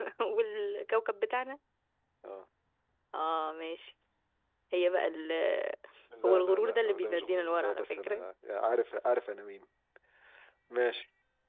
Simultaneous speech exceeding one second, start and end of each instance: 6.2-8.3

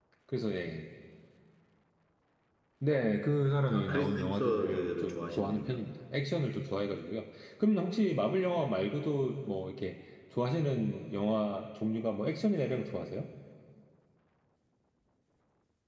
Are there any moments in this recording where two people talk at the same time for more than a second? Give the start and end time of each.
3.7-5.8

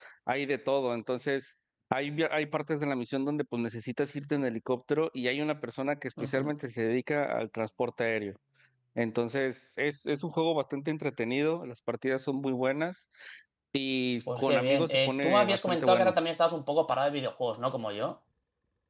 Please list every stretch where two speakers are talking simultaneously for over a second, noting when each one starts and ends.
14.3-16.1

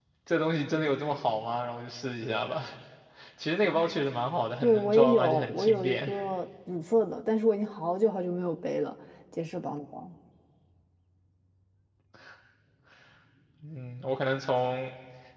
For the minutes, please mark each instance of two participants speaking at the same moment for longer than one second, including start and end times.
4.6-6.1

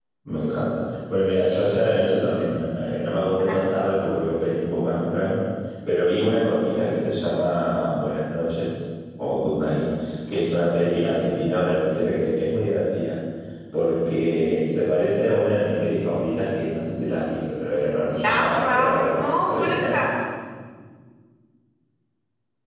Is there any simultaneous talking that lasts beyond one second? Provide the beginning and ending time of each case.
18.2-20.0

